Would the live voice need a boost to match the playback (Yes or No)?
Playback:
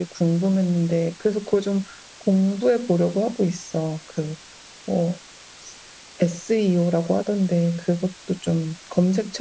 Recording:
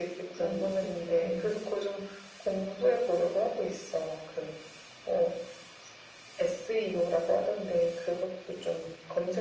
Yes